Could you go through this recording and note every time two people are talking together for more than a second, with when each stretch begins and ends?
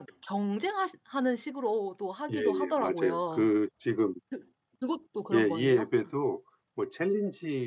2.3-3.5

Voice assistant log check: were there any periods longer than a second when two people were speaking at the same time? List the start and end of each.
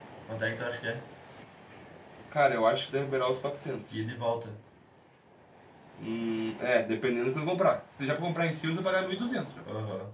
none

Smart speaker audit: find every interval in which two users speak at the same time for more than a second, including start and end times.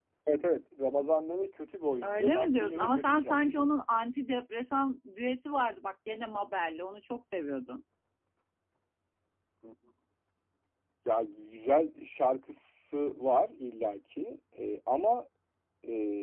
2.0-3.7

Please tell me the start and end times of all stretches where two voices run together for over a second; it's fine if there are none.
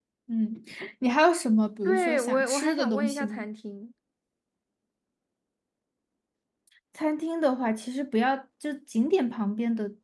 1.8-3.4

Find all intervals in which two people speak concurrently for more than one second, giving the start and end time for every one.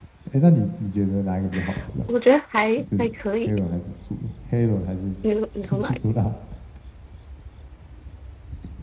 none

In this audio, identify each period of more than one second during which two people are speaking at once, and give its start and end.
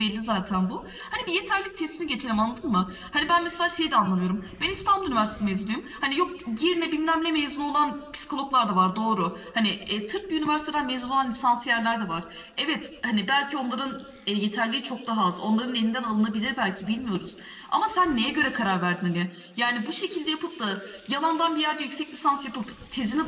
none

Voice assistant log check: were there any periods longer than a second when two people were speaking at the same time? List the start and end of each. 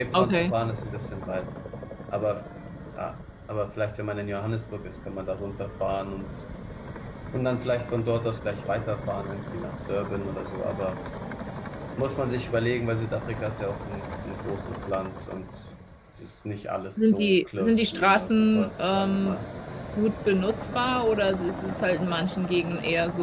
17.0-19.4

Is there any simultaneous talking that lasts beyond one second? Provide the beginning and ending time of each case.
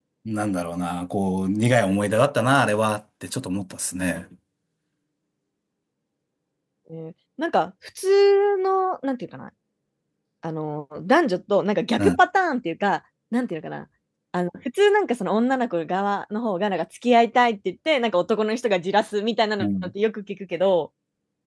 none

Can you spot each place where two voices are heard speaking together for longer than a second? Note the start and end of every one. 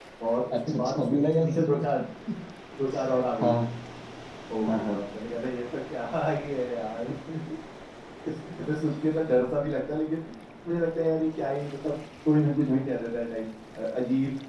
0.6-1.8

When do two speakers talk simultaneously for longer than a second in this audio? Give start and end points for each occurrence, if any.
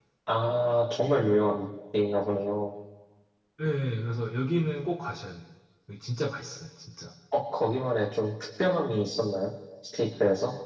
none

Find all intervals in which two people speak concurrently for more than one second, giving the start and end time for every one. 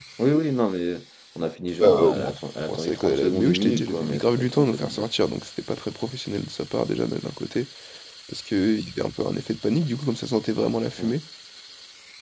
1.8-5.0

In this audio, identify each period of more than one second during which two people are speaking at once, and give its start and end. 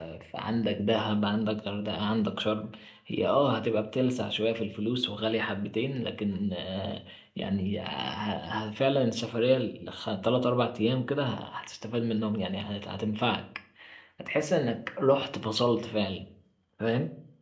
none

